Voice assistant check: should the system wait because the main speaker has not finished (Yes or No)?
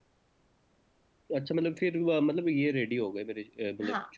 No